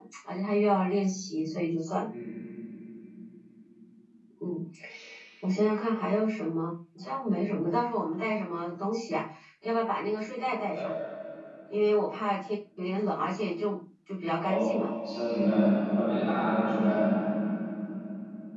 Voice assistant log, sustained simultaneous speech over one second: none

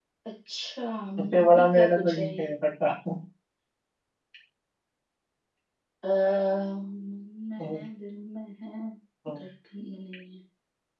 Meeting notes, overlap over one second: present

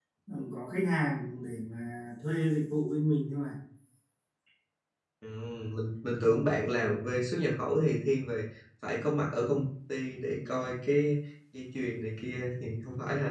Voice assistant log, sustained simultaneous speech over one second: none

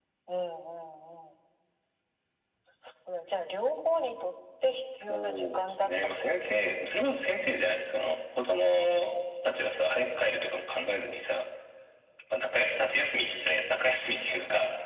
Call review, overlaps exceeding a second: present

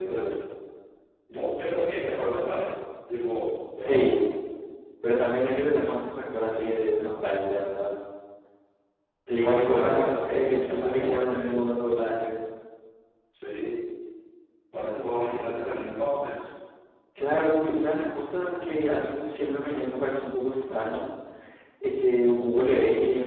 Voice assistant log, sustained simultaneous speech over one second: present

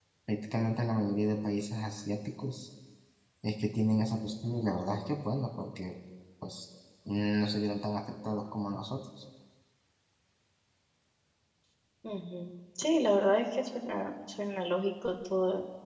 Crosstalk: none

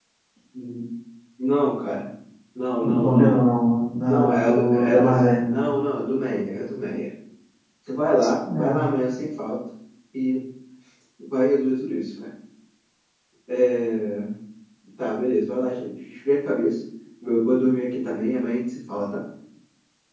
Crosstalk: present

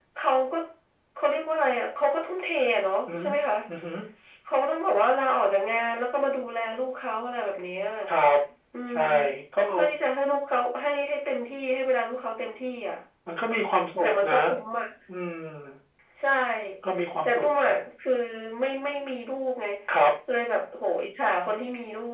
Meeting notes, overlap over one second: none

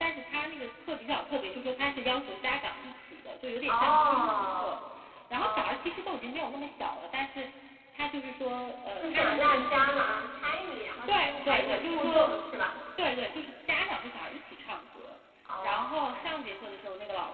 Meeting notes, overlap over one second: present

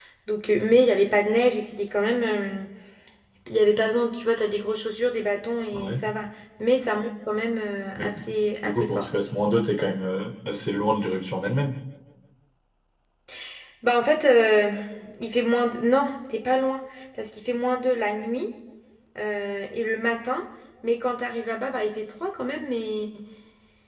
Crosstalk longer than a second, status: none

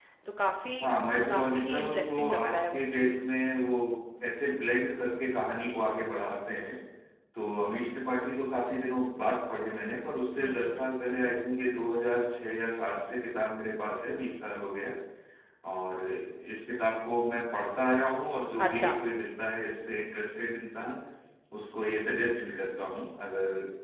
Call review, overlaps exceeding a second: present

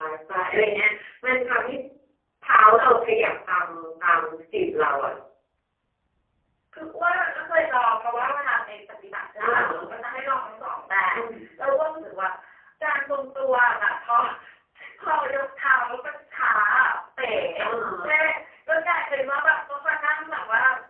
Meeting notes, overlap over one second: none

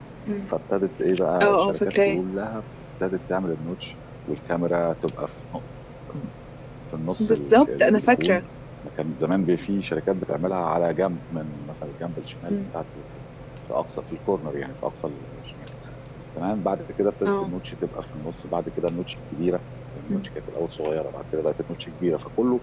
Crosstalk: present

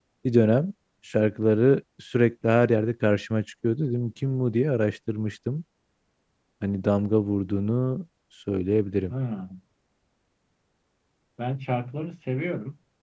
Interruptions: none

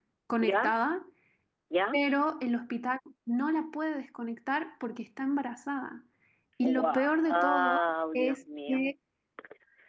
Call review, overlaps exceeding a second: present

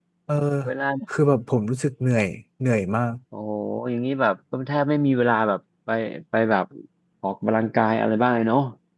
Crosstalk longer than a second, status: none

